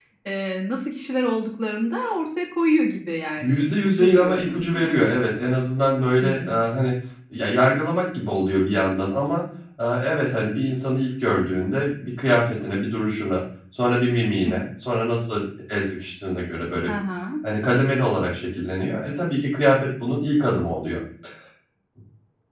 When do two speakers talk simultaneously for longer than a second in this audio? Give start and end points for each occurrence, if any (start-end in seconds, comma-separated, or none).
3.4-4.9